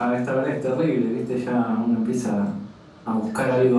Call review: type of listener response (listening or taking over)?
listening